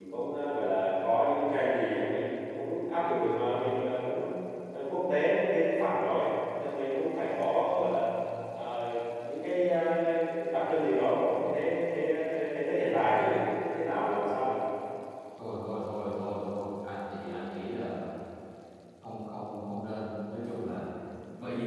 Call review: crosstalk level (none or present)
none